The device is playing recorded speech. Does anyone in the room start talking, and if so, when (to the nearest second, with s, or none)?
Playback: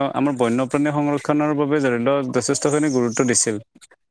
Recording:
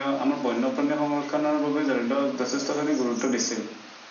none